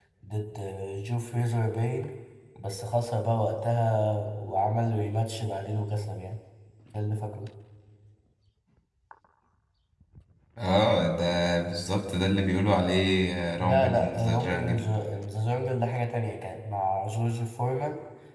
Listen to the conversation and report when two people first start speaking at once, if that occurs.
13.6 s

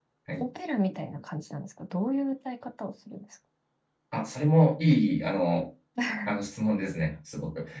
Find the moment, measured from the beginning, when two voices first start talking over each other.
none

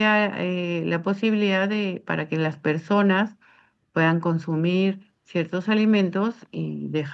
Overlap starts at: none

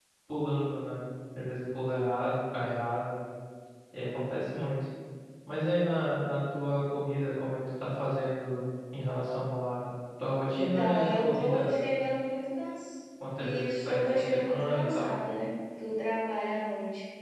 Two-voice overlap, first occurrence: 10.5 s

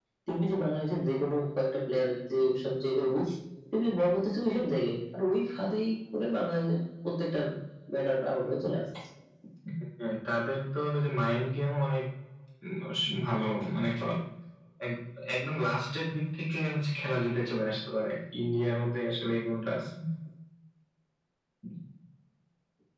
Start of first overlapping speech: none

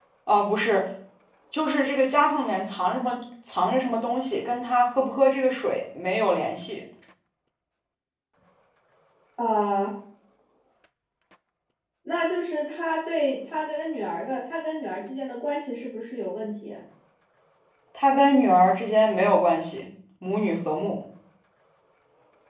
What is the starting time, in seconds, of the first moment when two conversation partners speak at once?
none

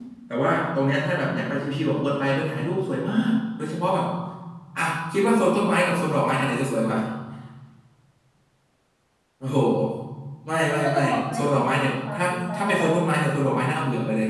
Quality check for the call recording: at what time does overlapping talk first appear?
10.7 s

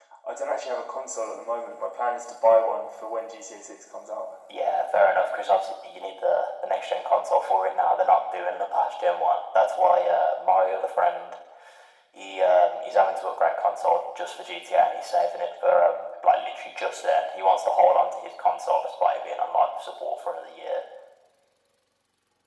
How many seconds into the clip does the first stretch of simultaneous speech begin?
none

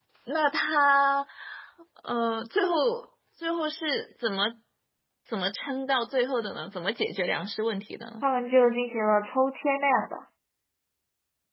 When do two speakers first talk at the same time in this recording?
none

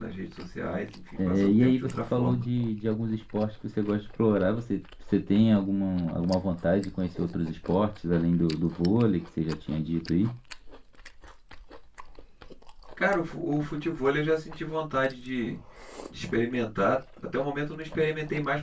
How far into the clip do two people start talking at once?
1.2 s

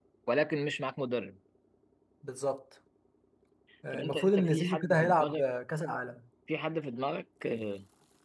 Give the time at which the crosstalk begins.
3.9 s

